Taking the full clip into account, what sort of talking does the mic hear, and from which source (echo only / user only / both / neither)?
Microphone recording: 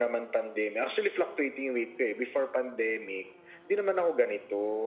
echo only